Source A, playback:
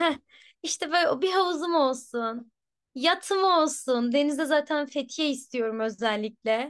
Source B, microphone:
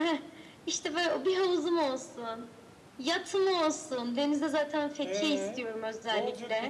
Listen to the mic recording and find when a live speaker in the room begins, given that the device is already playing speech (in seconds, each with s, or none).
5.0 s